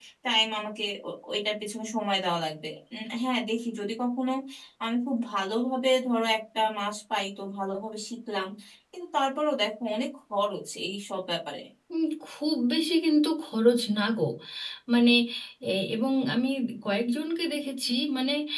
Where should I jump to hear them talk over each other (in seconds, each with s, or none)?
none